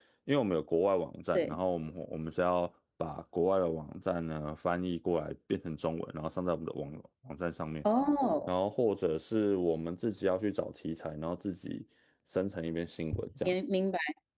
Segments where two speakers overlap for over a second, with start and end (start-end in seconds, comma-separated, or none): none